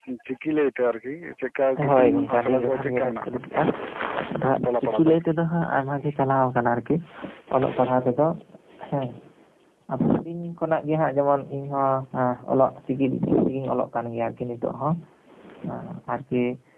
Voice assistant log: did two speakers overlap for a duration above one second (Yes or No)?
Yes